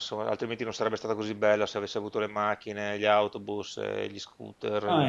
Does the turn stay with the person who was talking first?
No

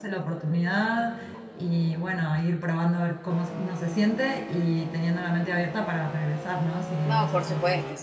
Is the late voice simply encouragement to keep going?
No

